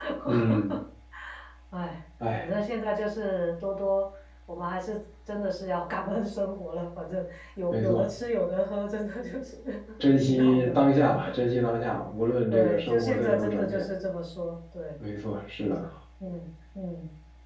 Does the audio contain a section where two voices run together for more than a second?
Yes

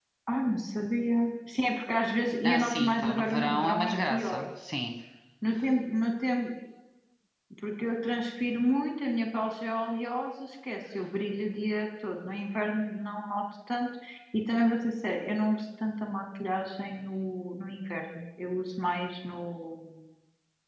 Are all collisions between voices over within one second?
No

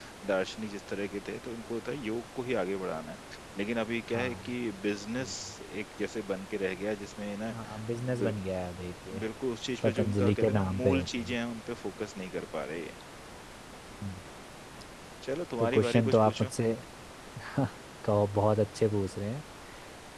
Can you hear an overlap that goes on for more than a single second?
Yes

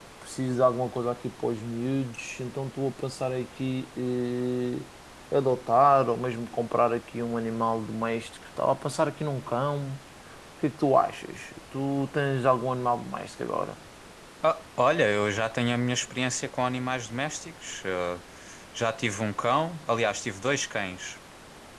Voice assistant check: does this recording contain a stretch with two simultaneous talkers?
No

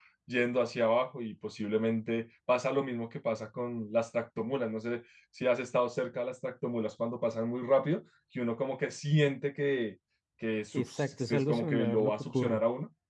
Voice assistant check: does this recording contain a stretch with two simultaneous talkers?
Yes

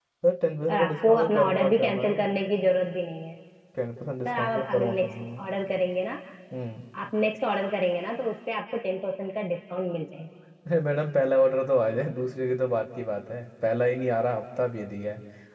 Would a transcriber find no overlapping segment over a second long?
No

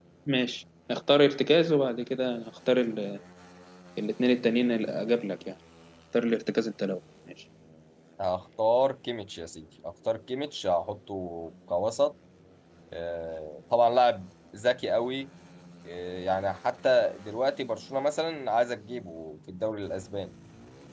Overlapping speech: No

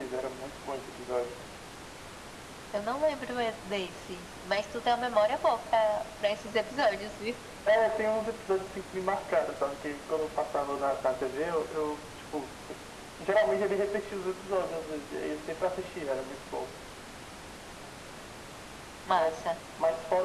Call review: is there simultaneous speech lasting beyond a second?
No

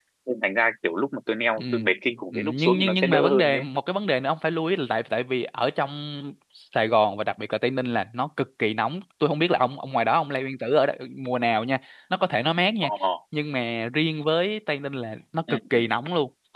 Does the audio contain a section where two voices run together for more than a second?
Yes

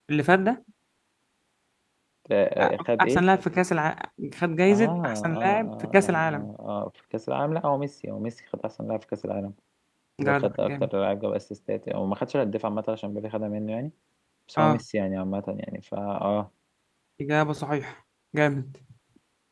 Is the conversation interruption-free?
No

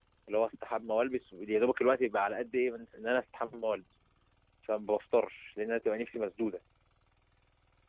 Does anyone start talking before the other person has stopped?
No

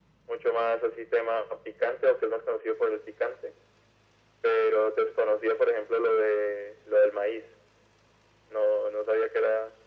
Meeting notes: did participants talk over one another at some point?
No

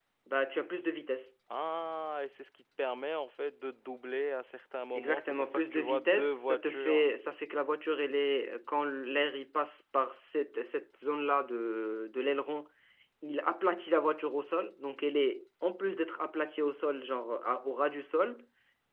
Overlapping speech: Yes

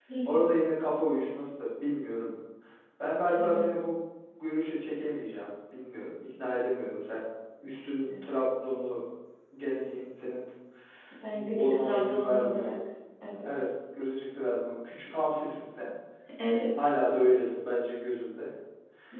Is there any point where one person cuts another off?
Yes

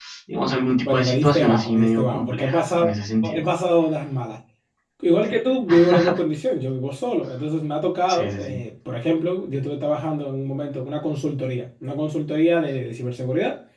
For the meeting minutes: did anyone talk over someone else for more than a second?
Yes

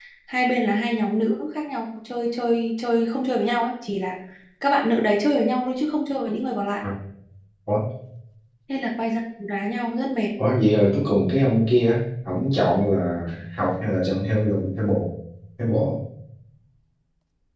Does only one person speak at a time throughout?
Yes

